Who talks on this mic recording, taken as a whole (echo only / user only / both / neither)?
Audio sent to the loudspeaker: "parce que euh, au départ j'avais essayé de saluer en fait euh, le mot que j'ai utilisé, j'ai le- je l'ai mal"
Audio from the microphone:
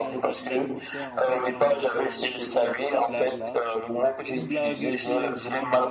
both